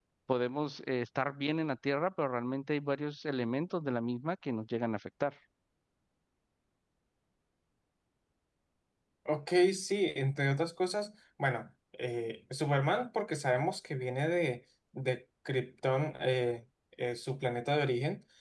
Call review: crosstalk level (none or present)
none